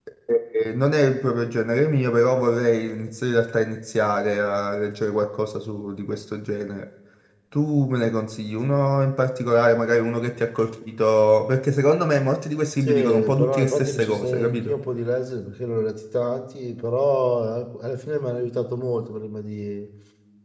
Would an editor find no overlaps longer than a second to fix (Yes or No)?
No